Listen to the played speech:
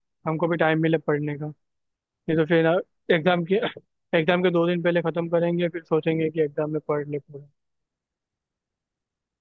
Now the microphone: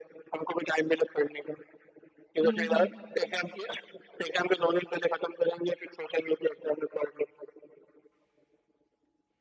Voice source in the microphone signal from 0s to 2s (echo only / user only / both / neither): echo only